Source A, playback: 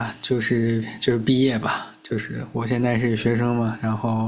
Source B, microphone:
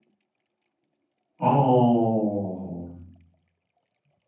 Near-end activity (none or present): present